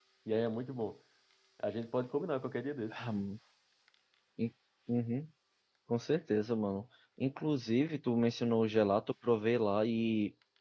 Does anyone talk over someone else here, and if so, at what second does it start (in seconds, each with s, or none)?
none